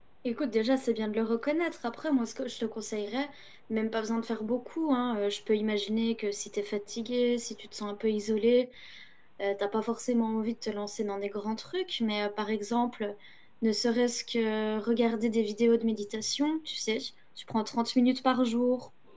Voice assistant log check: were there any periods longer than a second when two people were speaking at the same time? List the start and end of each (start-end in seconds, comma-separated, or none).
none